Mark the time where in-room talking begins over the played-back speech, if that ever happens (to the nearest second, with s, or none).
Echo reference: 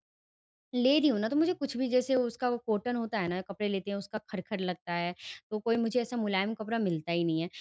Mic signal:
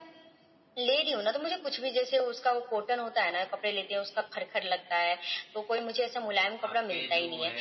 7 s